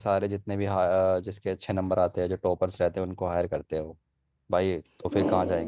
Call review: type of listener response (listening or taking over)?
listening